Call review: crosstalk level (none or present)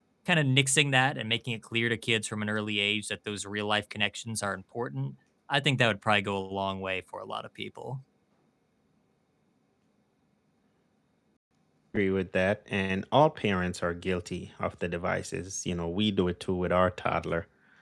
none